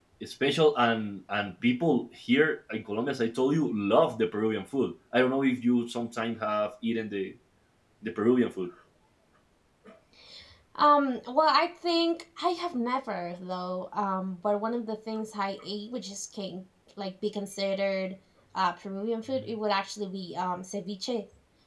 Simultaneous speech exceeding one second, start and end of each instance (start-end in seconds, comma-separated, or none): none